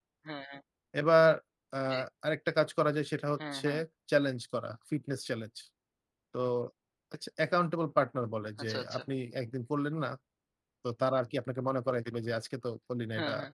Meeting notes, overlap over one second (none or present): none